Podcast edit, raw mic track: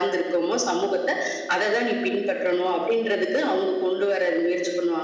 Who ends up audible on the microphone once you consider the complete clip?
echo only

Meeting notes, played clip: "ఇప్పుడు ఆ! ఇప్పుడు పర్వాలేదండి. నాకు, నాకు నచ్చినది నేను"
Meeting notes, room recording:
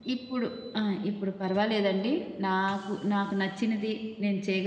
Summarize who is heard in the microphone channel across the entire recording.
echo only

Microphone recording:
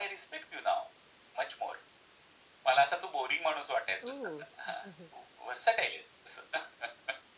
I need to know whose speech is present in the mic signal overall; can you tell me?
both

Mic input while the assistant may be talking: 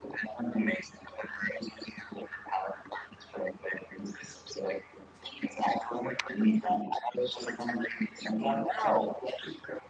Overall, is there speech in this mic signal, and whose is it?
echo only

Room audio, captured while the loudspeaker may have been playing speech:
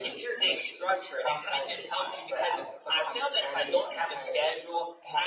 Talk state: echo only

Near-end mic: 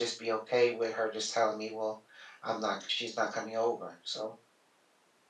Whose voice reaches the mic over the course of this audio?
echo only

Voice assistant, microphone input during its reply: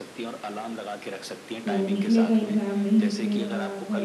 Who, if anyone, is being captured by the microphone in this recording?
both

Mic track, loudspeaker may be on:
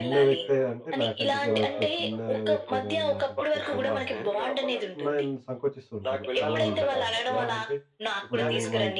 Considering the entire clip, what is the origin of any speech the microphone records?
both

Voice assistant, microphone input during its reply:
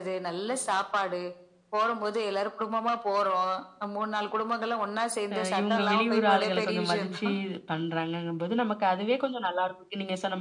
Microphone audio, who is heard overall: both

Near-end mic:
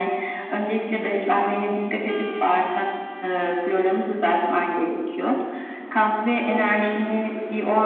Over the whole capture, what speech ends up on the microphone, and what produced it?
echo only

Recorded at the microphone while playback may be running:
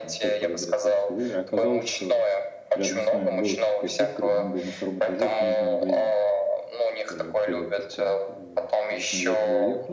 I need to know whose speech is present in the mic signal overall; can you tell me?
both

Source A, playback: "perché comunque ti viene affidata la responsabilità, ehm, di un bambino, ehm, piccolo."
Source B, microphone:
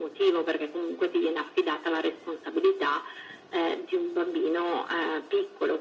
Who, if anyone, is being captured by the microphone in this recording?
echo only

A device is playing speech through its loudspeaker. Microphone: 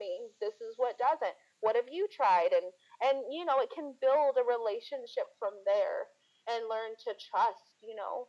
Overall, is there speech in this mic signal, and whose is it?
echo only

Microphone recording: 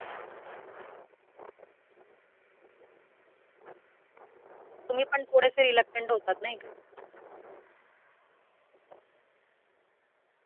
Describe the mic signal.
user only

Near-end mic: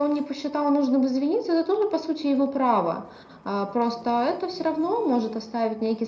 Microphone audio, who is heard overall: echo only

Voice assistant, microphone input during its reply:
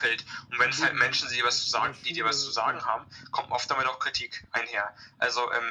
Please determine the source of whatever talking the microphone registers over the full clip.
both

